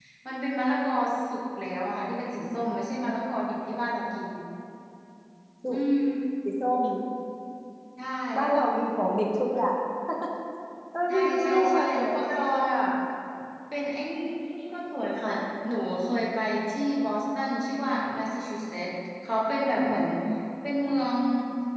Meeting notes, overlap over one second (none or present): present